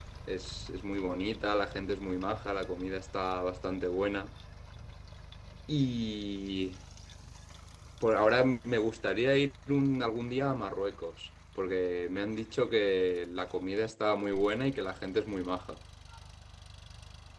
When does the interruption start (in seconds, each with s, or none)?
none